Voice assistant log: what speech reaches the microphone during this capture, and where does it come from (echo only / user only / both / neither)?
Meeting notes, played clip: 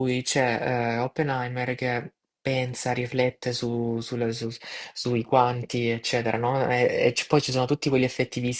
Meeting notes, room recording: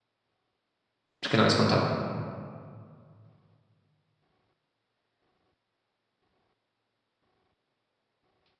user only